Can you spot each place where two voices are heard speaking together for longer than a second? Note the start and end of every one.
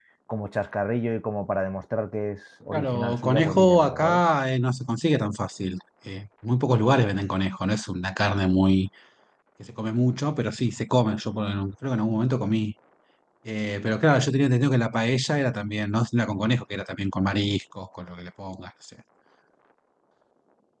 2.7-4.2

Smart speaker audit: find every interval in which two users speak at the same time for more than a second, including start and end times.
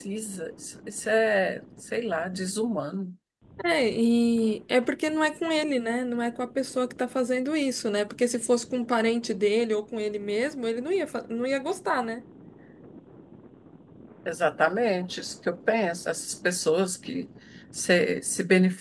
none

